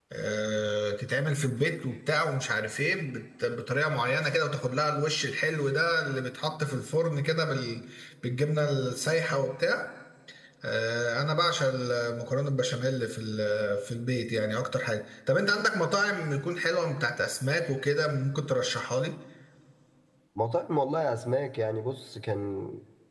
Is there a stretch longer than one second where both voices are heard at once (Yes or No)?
No